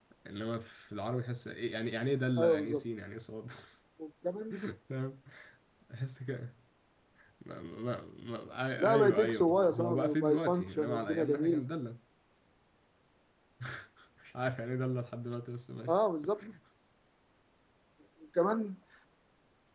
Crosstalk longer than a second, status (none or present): present